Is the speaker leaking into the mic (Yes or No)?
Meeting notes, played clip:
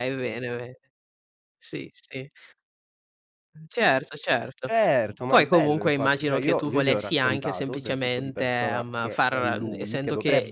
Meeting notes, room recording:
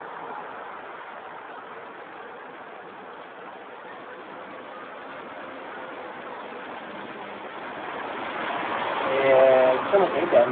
No